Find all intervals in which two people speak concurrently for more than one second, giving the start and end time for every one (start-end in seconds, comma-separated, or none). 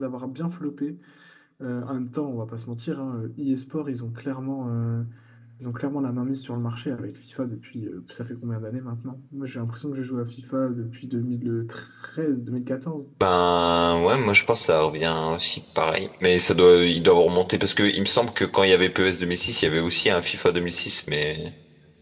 none